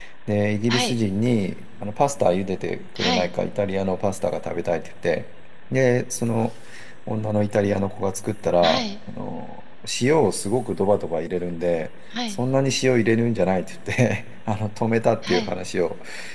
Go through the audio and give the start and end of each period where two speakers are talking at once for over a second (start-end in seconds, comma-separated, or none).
none